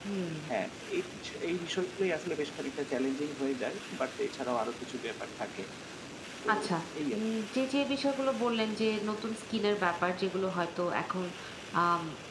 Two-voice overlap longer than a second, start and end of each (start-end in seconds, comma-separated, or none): none